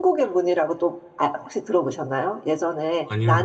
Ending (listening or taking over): listening